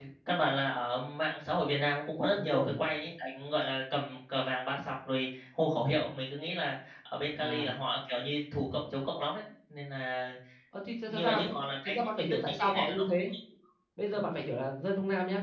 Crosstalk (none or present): present